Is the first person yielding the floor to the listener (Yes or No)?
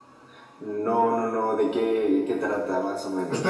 Yes